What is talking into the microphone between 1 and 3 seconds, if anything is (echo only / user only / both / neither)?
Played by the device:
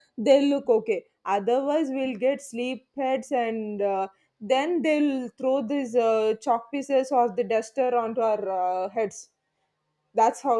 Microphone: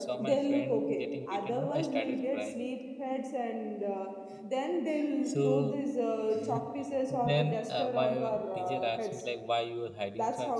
both